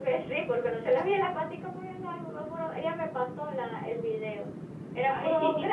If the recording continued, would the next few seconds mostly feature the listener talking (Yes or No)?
No